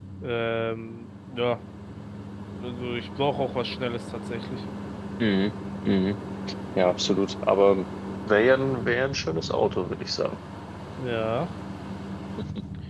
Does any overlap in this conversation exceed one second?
No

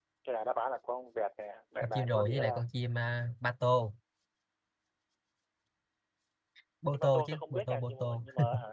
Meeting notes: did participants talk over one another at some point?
Yes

